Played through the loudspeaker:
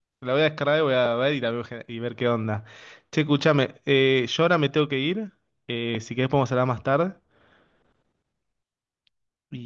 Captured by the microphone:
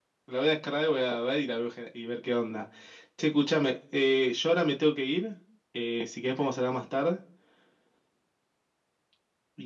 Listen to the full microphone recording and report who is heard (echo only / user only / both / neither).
echo only